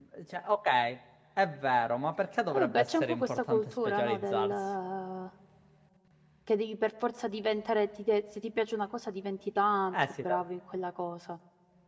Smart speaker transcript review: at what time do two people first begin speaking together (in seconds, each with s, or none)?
2.5 s